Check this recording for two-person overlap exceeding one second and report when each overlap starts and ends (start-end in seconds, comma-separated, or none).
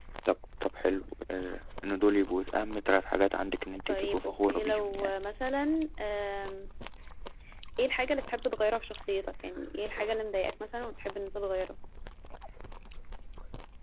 3.9-5.1